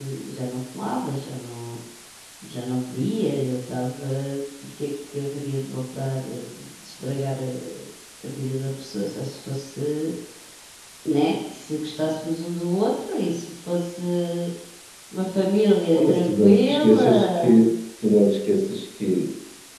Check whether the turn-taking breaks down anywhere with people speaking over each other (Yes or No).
Yes